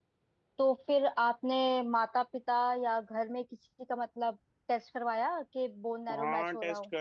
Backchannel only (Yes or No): No